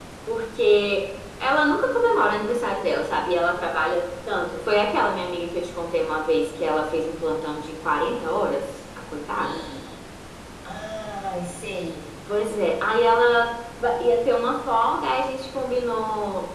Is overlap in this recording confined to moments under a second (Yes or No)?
Yes